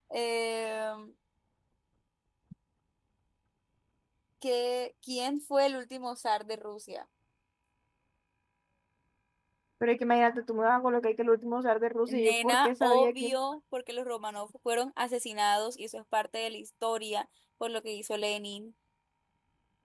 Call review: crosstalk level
present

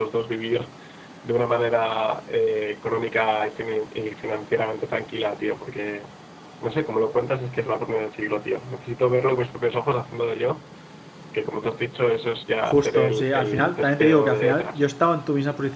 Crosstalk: present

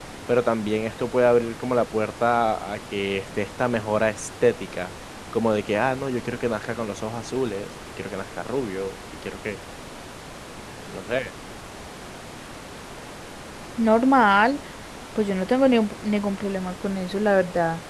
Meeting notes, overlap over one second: none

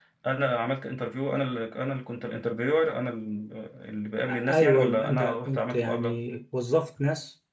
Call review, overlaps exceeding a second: present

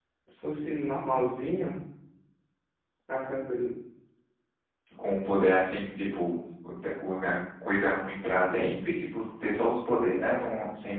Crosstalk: none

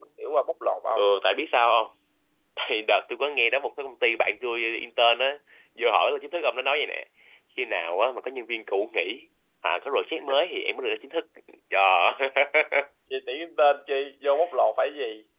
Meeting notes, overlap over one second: none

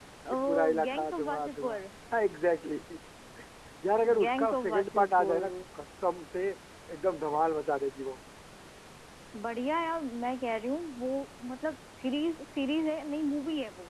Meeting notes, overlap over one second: present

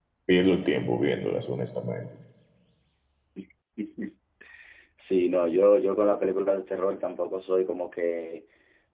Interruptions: none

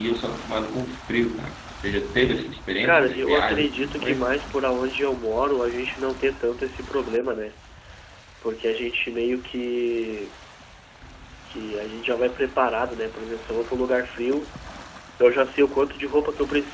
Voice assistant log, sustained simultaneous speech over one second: present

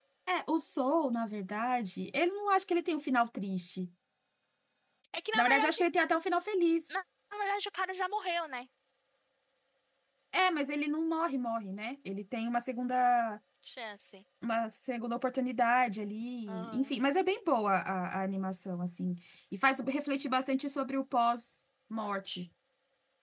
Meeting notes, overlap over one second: none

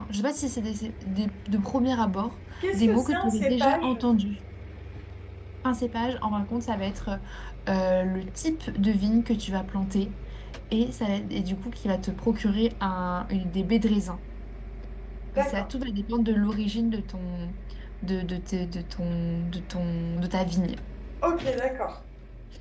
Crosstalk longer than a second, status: present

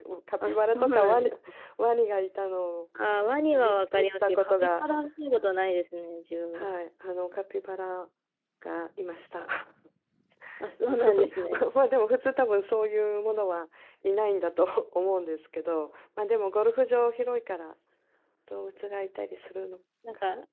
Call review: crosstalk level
present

